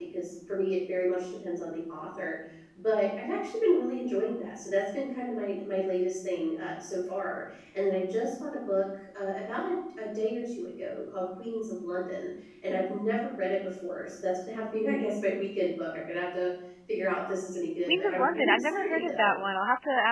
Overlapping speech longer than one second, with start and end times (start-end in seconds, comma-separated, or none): 17.9-19.4